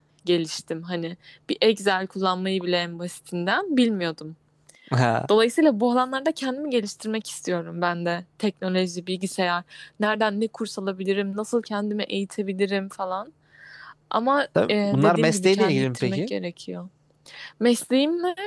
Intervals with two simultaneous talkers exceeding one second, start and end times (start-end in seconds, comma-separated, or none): 14.7-16.3